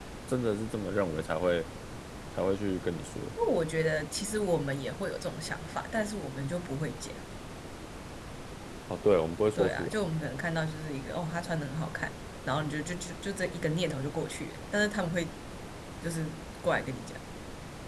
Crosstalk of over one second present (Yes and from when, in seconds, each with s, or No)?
No